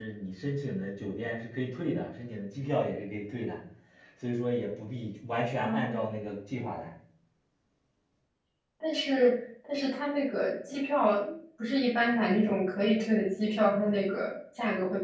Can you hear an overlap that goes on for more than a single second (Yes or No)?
No